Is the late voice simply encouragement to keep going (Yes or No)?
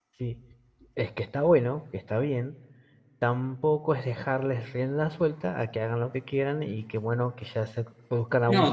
No